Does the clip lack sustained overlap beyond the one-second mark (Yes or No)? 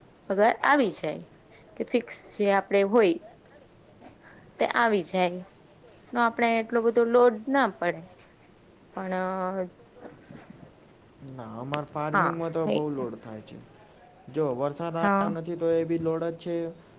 Yes